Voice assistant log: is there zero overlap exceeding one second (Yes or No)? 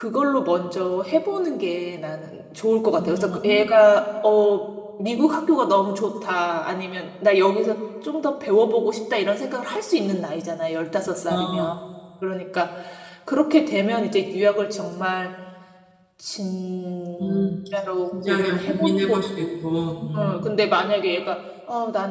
No